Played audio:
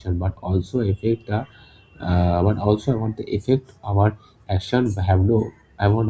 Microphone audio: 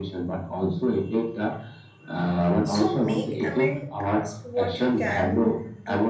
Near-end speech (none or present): present